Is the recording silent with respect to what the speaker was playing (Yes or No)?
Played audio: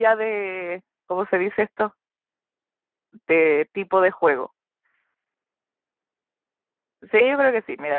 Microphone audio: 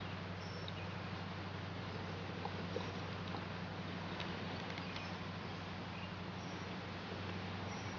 Yes